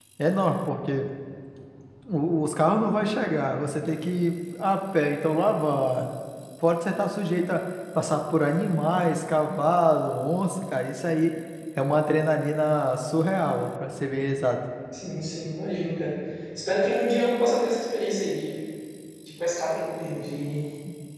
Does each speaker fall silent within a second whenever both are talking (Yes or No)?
Yes